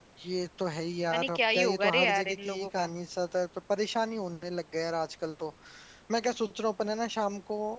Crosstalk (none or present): present